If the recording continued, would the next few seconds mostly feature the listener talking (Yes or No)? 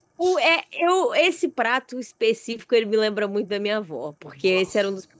No